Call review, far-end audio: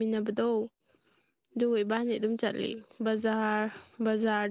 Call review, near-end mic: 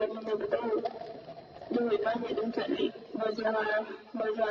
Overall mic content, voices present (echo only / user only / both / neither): echo only